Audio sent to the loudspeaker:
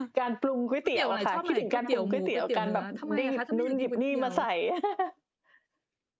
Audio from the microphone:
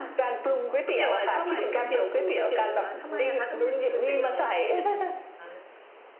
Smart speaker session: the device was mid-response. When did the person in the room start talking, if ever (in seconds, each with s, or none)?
3.8 s